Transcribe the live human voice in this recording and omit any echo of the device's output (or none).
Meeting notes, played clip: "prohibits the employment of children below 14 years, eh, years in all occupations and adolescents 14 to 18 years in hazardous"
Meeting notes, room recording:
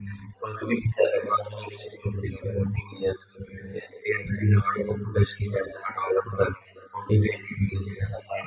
none